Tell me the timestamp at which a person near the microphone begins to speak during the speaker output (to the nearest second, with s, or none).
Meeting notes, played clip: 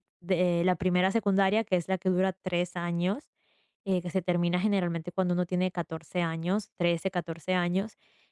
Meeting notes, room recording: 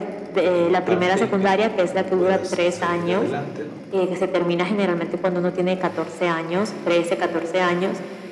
0 s